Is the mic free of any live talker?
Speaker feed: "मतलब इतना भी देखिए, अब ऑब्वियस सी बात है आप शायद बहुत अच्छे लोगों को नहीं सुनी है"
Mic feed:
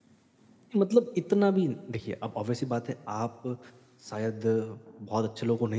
Yes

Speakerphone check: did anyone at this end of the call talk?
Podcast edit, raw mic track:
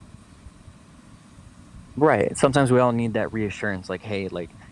Yes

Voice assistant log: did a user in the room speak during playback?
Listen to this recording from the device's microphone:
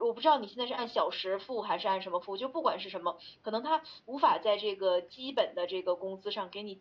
No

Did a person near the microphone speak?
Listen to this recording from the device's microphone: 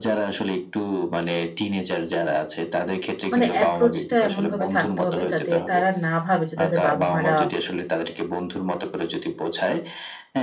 Yes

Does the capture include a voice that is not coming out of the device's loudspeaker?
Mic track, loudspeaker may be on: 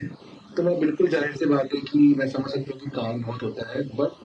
No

